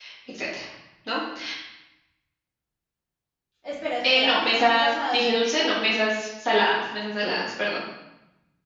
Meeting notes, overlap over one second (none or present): present